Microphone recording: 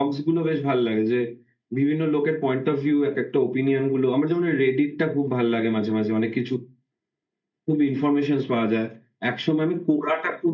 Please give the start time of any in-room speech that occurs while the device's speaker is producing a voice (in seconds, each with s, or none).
none